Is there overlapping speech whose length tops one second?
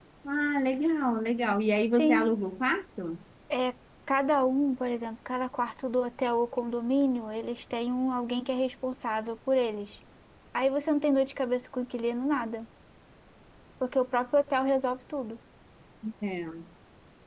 No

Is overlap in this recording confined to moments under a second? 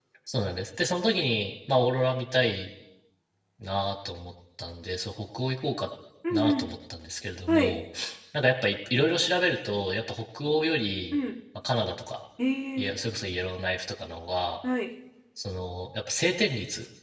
Yes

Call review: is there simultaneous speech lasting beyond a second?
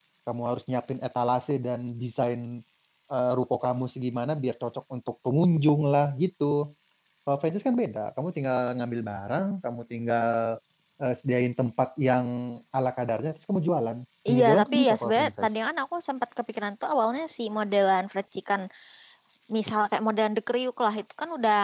Yes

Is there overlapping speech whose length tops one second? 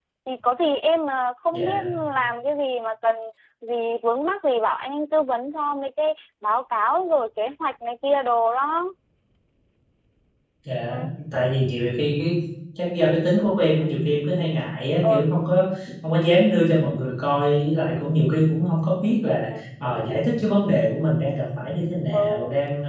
No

